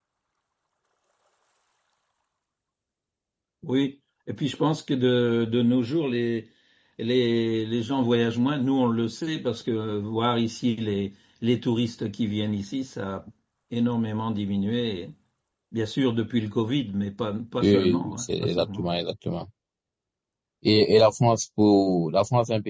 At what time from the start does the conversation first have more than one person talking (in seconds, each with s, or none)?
17.6 s